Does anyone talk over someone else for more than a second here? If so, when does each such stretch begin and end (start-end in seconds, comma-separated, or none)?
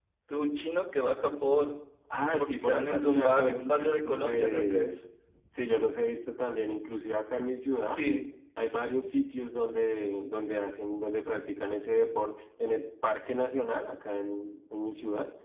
2.3-5.0